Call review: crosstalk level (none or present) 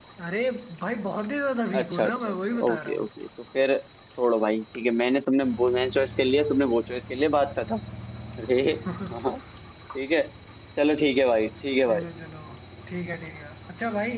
present